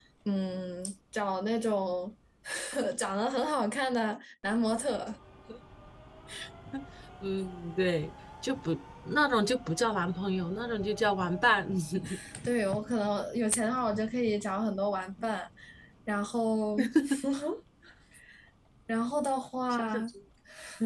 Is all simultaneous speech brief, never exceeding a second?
Yes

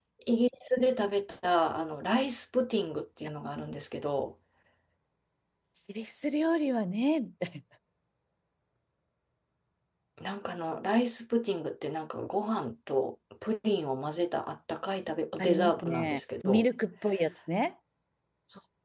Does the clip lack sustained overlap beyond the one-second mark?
No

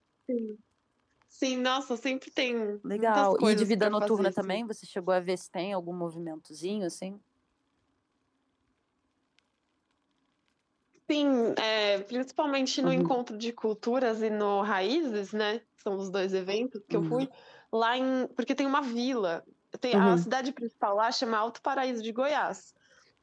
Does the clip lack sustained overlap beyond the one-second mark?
No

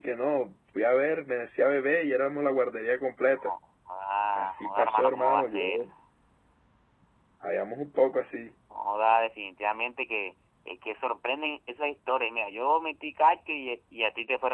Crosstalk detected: Yes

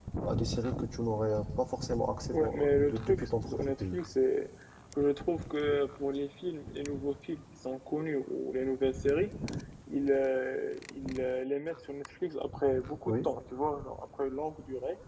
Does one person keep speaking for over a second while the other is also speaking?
Yes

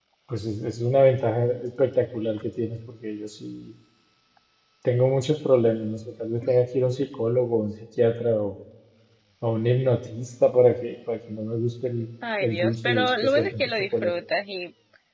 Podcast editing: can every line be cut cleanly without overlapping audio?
No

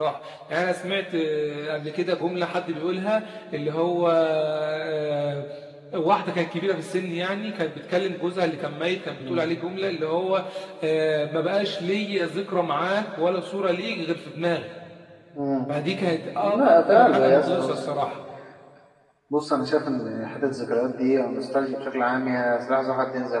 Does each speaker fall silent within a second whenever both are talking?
No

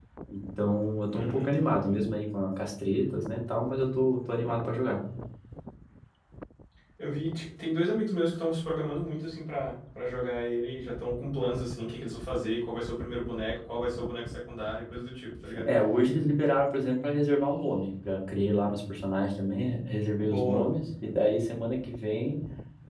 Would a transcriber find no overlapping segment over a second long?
Yes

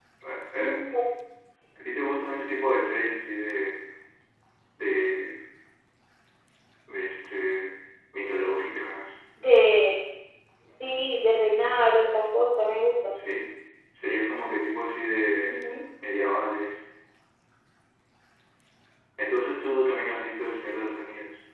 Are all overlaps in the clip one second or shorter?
Yes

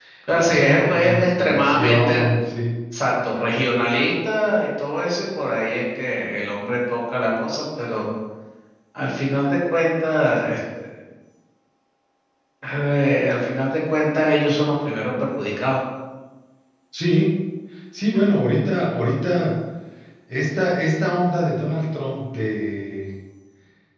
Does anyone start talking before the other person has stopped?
Yes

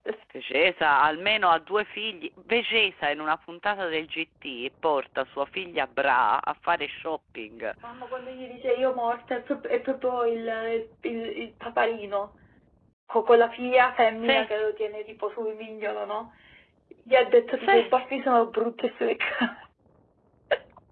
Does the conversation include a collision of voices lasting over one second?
No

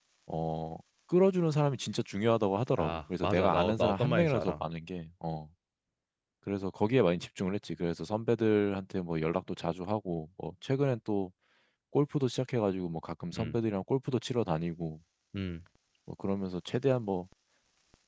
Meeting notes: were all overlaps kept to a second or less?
No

